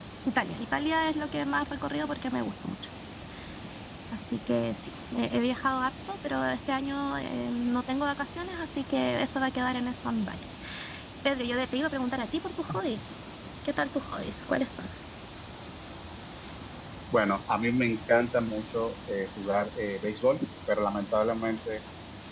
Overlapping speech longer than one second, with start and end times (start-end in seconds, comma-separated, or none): none